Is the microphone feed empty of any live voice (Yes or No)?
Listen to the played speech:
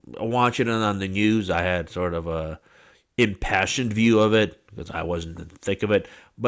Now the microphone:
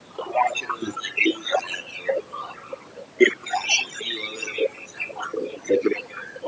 Yes